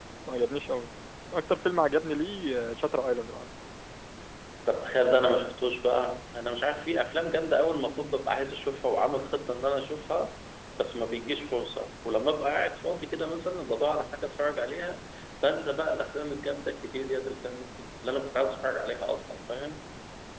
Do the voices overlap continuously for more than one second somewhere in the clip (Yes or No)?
No